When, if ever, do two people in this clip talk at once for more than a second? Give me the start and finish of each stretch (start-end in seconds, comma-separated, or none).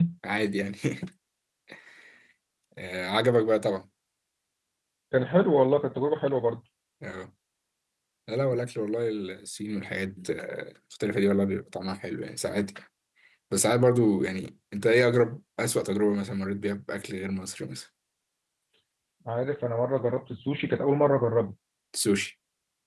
none